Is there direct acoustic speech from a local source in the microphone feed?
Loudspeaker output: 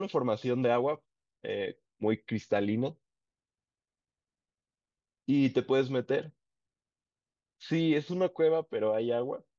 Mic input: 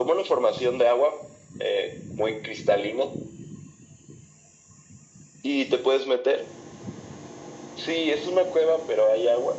No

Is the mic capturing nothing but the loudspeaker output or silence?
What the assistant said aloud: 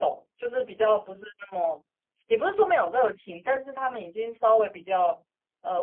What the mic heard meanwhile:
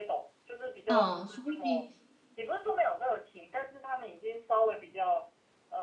No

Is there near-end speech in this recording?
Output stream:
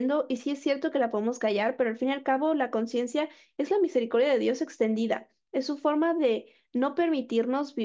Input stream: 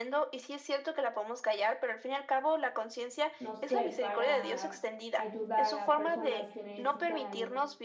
Yes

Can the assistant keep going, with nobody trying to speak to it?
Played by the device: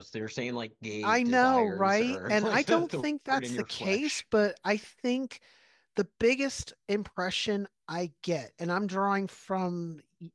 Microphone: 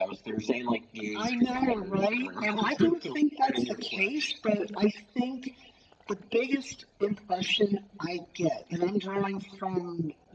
Yes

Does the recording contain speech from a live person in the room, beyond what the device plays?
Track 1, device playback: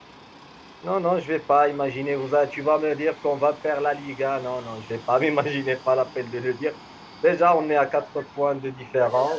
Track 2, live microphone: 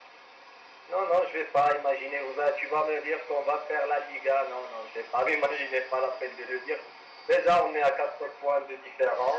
No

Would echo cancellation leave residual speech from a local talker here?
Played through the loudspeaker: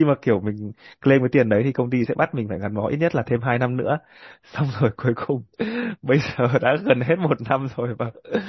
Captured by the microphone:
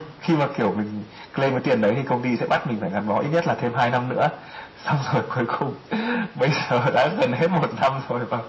No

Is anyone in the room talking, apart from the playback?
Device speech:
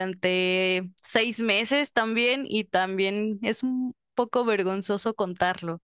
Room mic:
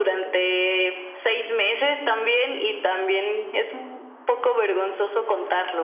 No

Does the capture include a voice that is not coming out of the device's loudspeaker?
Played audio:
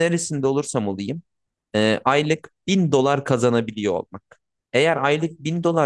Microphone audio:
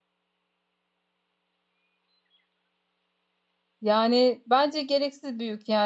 Yes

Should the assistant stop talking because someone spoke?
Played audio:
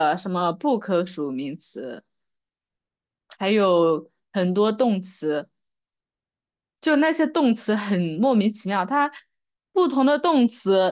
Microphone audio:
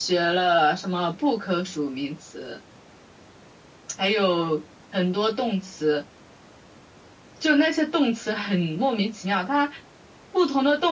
No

